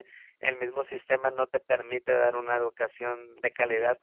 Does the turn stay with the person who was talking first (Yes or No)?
No